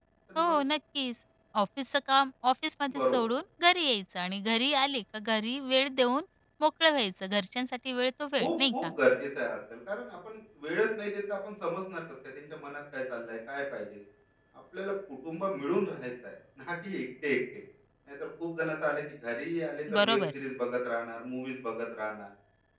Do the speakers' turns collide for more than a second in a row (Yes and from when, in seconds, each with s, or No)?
No